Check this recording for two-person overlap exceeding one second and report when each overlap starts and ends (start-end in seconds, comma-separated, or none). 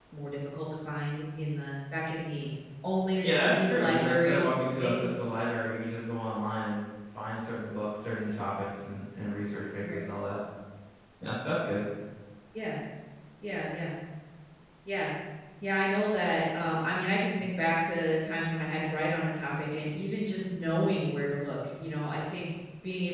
3.2-5.1